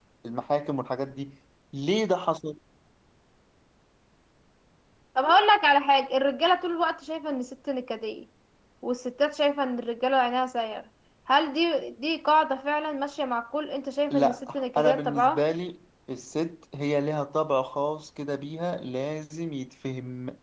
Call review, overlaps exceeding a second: present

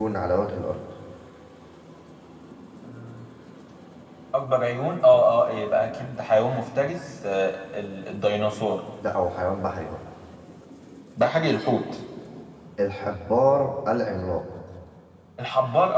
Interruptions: none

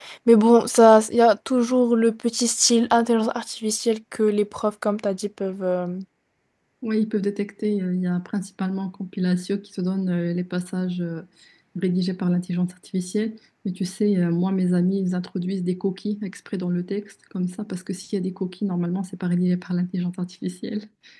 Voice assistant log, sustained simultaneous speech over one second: none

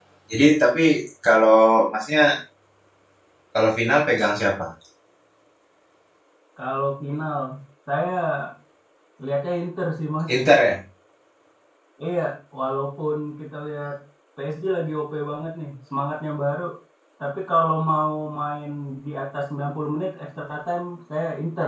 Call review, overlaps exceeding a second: none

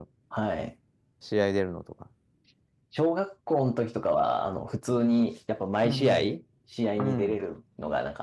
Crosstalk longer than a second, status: none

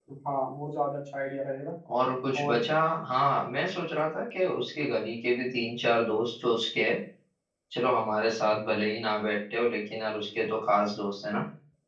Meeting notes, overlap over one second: none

